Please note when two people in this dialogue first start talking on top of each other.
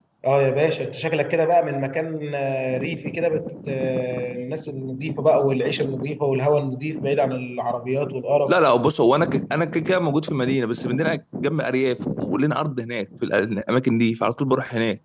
none

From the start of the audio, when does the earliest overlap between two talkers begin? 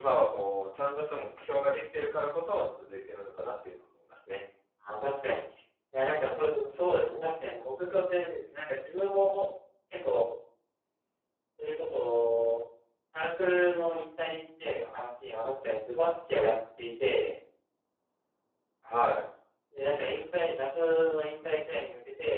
none

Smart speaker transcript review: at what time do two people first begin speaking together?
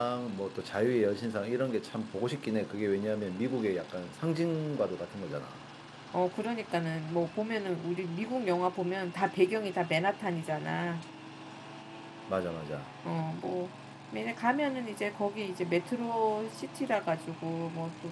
none

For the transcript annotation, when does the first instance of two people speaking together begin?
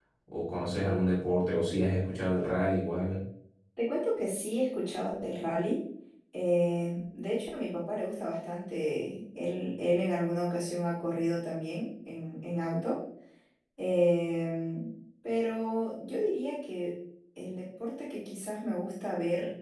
none

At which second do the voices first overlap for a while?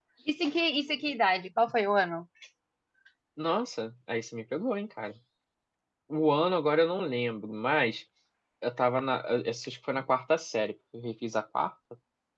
none

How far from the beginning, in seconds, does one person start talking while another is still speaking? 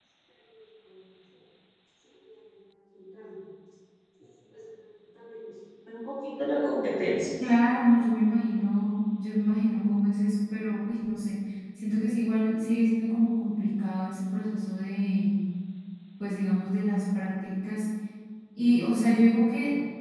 none

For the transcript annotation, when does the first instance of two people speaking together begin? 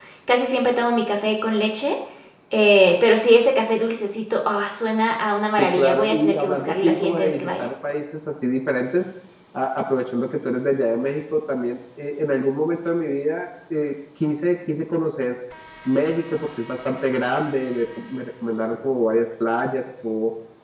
5.6 s

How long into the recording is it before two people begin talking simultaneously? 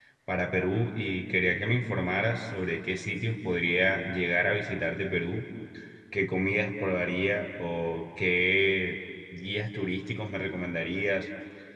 none

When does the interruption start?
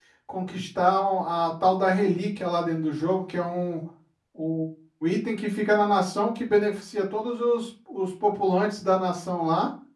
none

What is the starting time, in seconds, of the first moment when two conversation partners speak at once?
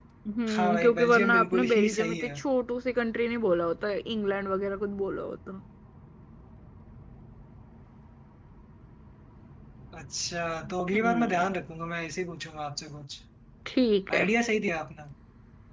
0.6 s

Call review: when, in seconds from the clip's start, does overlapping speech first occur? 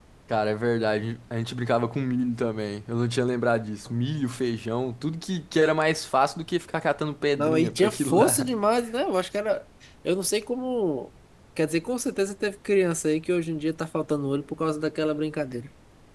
7.3 s

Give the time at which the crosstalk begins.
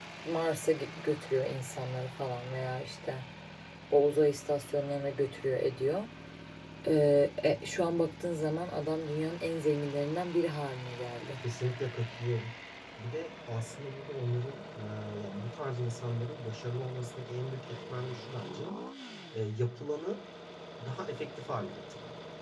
none

